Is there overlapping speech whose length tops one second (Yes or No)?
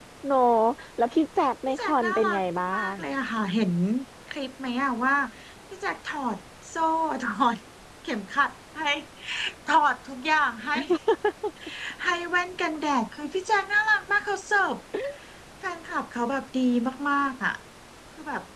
Yes